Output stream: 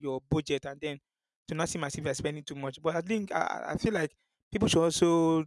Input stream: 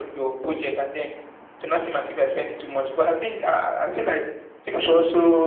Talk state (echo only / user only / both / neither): echo only